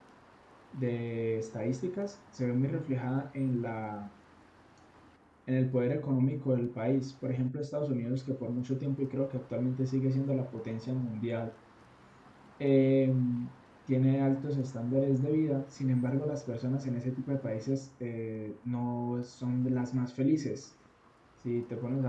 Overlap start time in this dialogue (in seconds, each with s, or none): none